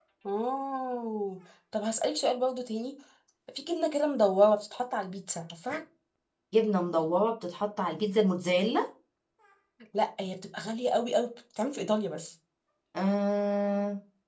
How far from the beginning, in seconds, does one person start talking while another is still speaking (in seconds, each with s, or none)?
none